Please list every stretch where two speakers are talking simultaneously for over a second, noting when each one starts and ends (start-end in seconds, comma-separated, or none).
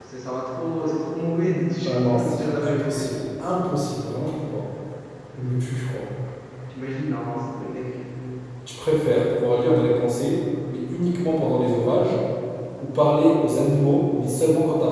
1.8-3.1